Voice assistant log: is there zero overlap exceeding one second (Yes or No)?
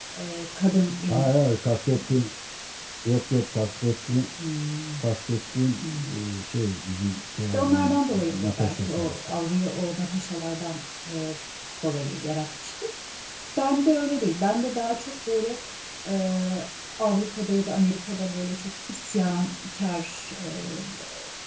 No